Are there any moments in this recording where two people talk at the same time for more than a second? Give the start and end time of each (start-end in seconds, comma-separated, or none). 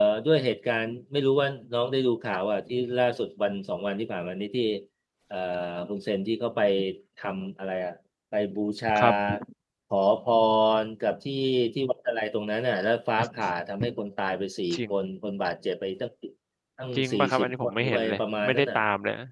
16.9-18.8